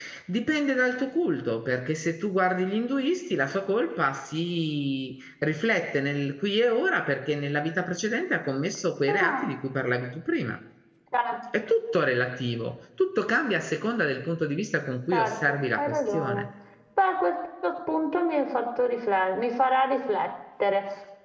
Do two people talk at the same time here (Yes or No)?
Yes